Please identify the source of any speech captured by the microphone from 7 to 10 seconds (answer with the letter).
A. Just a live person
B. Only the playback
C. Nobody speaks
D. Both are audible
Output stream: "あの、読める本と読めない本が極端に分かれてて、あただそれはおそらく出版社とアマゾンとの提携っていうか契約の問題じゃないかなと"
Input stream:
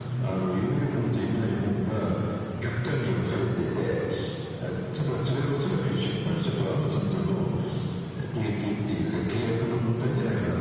B